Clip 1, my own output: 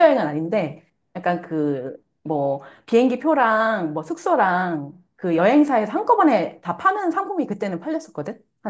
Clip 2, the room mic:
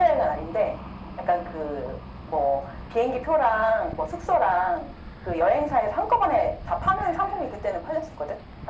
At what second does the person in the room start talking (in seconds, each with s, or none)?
none